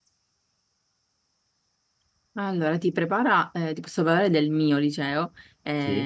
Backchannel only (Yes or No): Yes